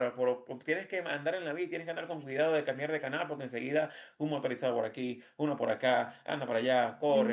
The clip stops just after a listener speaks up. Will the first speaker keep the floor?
No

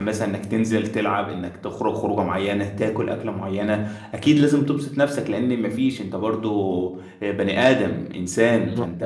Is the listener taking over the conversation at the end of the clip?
No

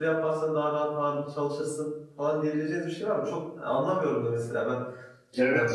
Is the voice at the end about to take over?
Yes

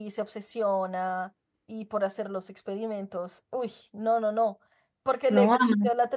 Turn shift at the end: No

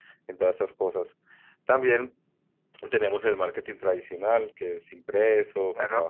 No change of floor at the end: Yes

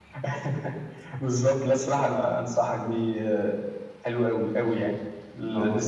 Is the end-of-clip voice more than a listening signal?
No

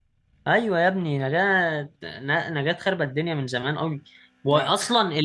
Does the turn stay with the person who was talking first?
Yes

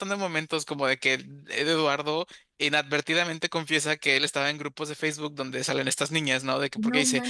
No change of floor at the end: Yes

